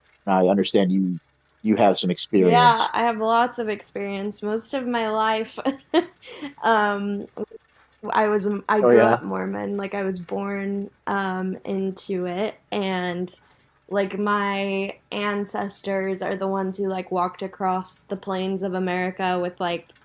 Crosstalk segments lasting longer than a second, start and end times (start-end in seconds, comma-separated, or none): none